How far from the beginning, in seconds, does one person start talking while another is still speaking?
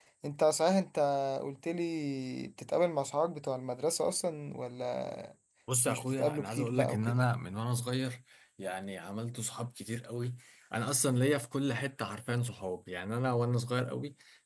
5.8 s

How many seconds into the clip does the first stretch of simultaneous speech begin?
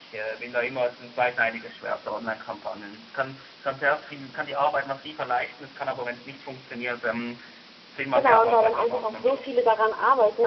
8.1 s

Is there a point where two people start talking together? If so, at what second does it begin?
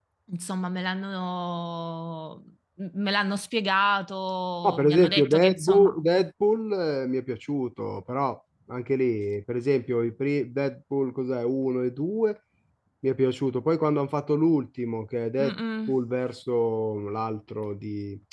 4.7 s

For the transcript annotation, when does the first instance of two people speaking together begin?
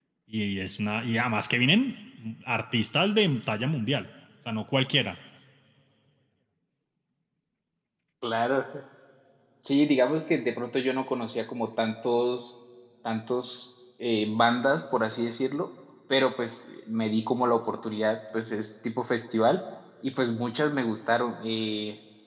none

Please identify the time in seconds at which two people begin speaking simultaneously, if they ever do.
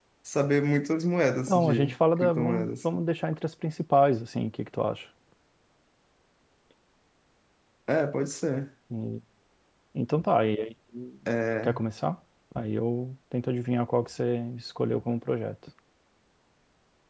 1.5 s

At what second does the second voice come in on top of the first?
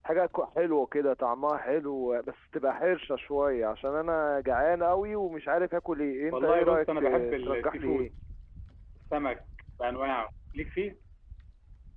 6.3 s

